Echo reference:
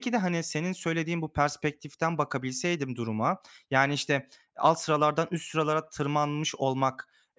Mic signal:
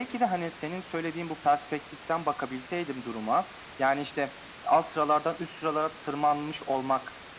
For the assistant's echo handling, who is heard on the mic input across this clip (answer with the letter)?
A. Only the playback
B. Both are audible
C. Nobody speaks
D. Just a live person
A